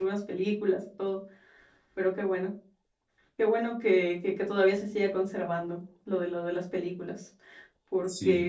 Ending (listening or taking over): taking over